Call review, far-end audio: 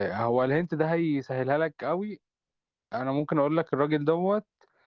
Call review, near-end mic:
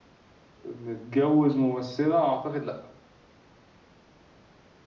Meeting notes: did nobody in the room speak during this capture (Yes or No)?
No